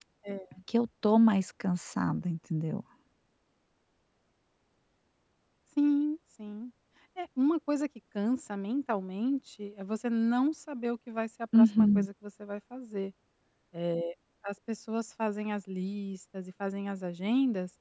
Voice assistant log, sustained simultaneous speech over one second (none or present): none